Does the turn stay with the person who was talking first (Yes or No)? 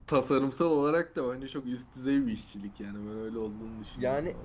No